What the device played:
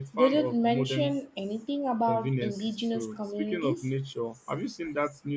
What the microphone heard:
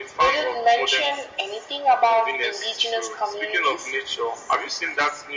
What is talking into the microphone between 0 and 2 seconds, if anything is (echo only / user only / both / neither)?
echo only